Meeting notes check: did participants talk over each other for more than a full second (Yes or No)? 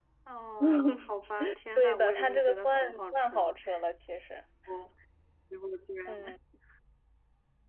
Yes